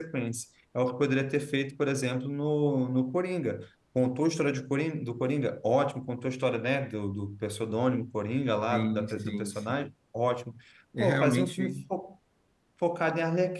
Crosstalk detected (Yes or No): Yes